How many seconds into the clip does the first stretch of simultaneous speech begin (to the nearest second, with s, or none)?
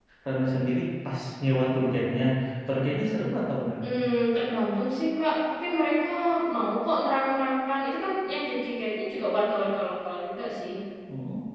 none